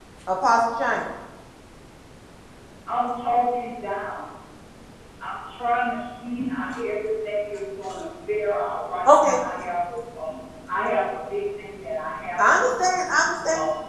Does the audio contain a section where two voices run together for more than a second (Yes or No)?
No